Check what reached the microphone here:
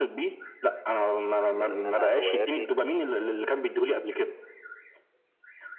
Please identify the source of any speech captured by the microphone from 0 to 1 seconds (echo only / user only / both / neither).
echo only